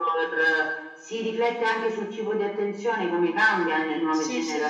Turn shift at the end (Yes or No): Yes